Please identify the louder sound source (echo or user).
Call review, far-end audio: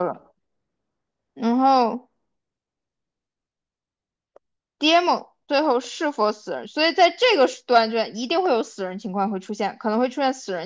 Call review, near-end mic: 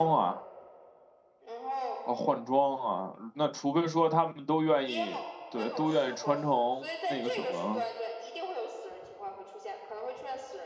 user